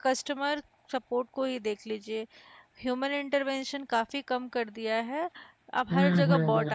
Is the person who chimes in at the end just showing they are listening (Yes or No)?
Yes